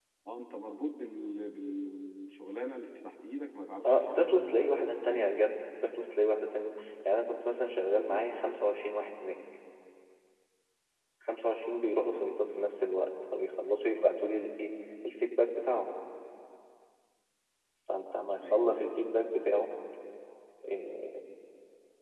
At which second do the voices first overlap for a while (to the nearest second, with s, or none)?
4 s